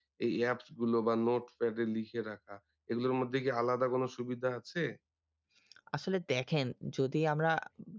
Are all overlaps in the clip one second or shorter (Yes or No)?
Yes